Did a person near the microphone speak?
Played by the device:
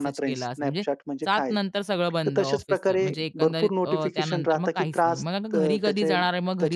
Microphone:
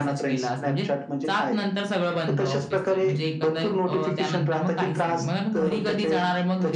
No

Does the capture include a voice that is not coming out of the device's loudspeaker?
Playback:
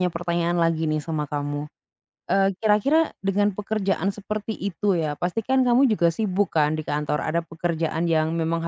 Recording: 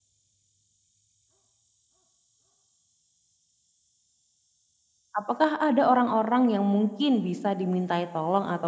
Yes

